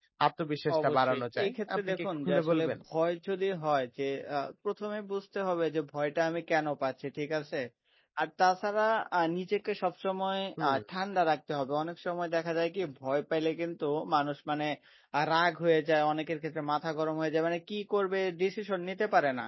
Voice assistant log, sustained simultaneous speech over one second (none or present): present